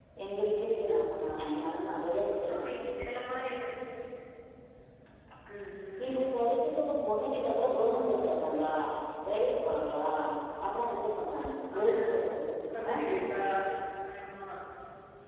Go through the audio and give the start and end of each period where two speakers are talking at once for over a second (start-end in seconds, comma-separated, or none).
none